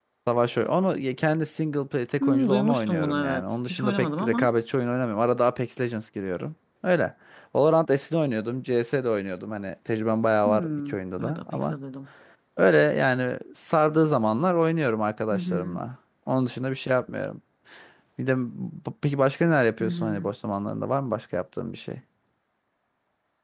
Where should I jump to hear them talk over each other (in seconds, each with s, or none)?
2.2 s